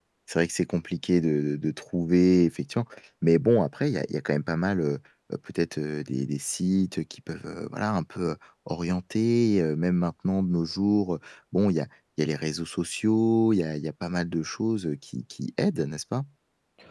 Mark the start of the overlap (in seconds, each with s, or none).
none